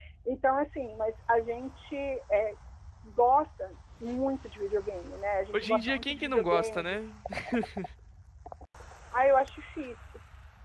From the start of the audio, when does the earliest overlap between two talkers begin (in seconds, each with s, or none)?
5.5 s